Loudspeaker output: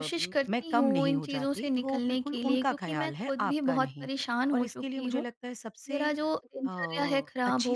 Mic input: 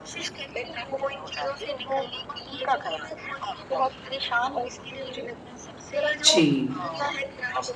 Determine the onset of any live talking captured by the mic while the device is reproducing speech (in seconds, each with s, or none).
6.2 s